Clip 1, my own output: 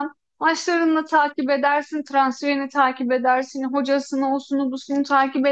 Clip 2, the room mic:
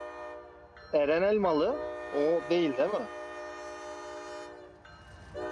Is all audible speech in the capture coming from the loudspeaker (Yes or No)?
No